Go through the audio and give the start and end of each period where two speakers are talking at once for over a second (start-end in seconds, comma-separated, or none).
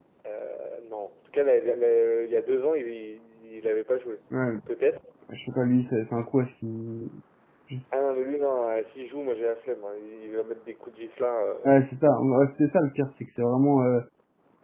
none